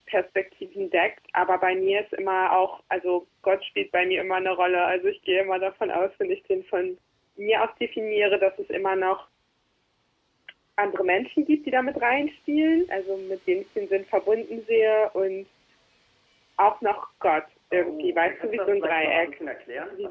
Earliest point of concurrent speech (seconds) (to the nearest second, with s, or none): 18 s